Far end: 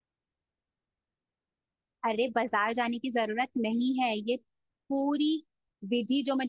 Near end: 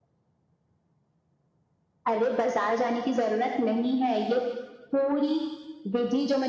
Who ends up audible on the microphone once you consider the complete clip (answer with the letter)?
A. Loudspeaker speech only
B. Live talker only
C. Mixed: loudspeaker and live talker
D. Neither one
A